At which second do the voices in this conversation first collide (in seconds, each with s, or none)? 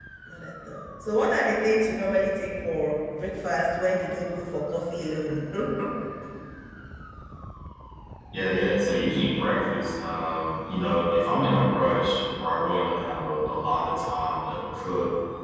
none